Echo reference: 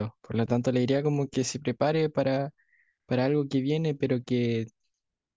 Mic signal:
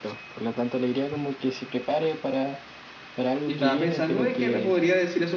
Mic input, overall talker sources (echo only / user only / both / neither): both